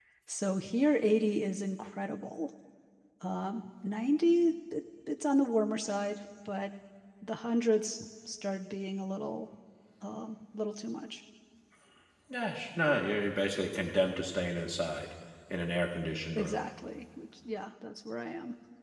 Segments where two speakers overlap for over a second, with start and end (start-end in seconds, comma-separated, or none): none